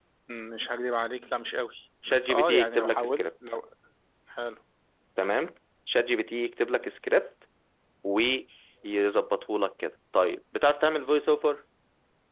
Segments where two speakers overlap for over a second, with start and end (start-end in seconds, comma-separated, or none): 2.1-3.6